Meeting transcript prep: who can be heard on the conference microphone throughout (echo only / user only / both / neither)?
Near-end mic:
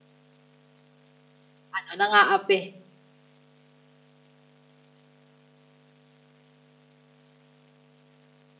user only